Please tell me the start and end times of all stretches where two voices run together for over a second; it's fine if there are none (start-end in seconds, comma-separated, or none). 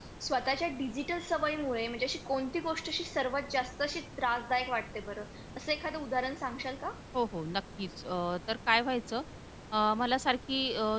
none